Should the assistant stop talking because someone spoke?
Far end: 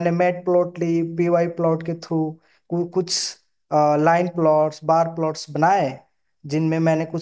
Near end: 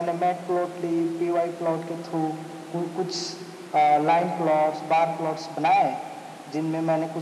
No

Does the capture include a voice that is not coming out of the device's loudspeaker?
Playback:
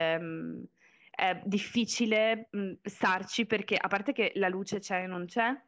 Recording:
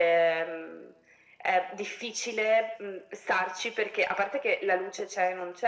No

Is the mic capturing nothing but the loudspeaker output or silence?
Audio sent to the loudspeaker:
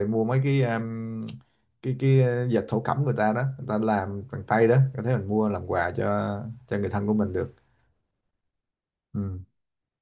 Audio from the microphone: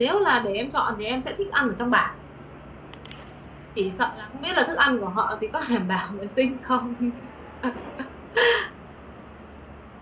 No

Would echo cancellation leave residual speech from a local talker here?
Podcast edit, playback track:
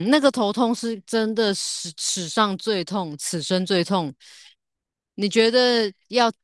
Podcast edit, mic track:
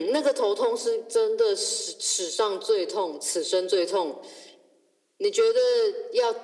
No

